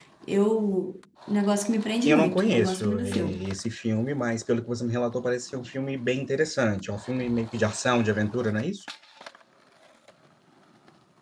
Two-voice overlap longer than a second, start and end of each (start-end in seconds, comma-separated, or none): 2.0-3.4